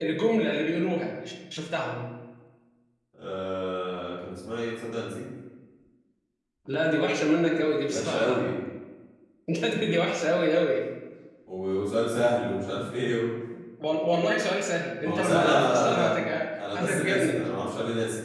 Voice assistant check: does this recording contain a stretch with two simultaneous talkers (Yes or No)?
Yes